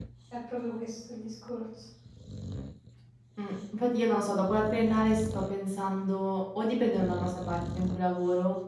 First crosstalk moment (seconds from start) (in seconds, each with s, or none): none